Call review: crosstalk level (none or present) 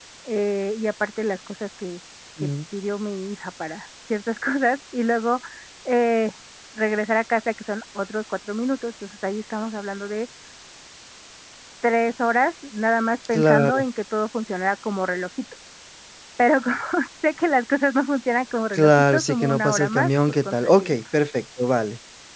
present